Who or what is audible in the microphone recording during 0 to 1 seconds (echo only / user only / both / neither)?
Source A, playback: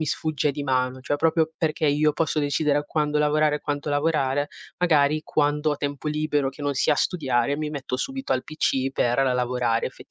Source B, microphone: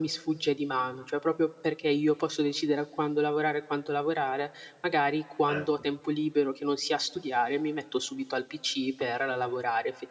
echo only